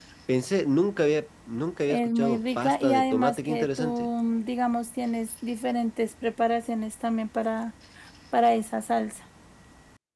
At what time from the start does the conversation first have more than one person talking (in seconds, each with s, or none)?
1.9 s